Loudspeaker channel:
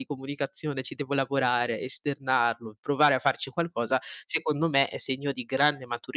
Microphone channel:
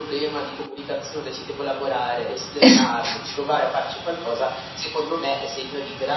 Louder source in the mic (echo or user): user